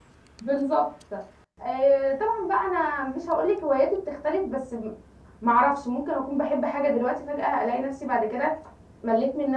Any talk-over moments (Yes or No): No